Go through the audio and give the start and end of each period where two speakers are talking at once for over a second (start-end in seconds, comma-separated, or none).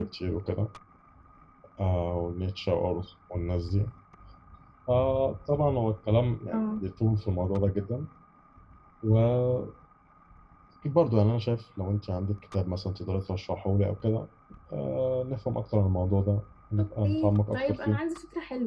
16.8-18.0